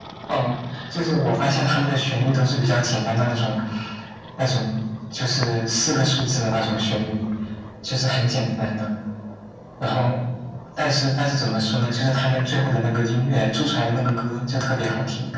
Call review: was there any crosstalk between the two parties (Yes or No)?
No